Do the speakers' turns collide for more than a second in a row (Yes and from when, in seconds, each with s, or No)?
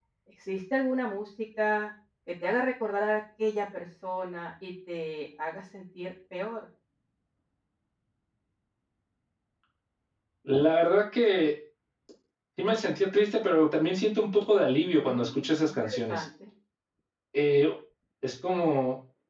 Yes, from 15.0 s